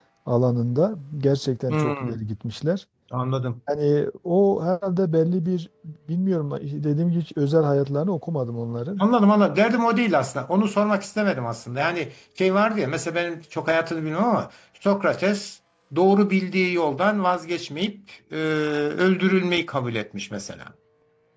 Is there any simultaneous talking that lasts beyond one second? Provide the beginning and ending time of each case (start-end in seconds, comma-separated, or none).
none